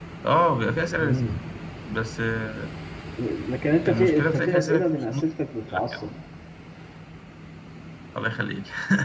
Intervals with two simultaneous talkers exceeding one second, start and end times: 3.9-5.2

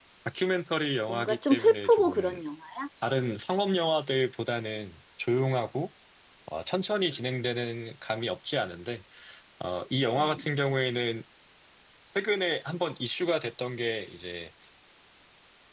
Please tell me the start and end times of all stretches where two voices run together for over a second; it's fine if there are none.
1.1-2.4

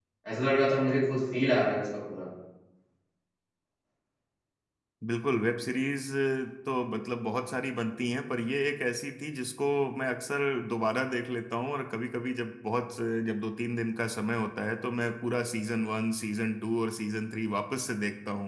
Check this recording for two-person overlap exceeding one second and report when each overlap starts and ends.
none

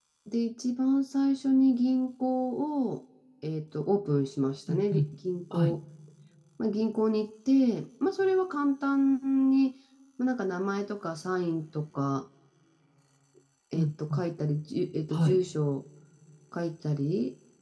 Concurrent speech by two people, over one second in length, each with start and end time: none

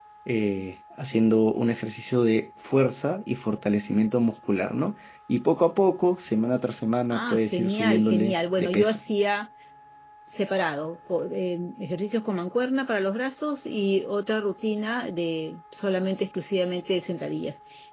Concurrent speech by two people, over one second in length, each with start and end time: 7.1-9.0

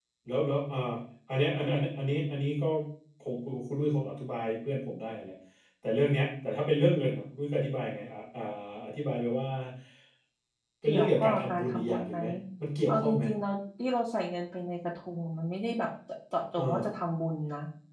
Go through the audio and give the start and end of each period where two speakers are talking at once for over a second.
10.9-12.2

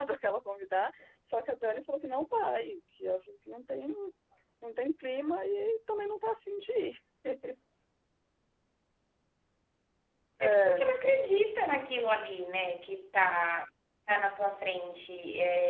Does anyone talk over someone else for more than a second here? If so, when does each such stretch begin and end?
none

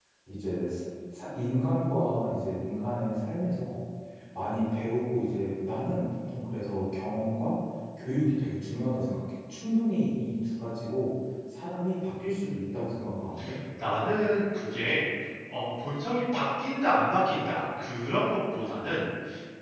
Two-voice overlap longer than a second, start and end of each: none

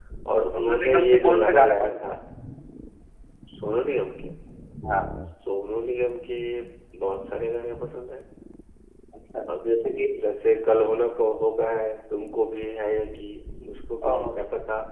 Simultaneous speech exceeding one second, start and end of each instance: 0.6-2.1

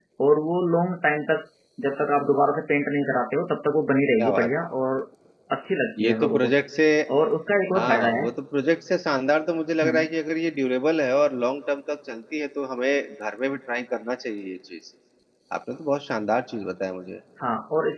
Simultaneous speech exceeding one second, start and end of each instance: none

